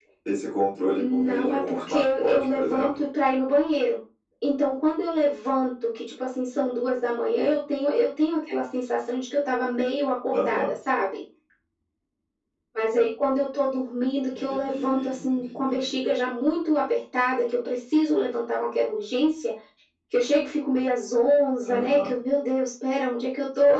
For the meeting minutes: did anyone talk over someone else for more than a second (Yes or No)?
Yes